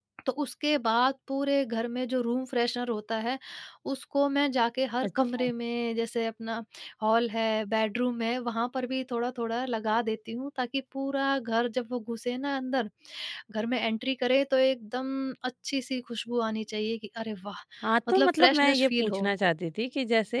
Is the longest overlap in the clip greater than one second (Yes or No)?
Yes